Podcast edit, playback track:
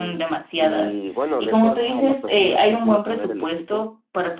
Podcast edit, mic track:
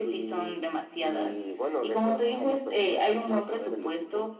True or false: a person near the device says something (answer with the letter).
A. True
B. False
B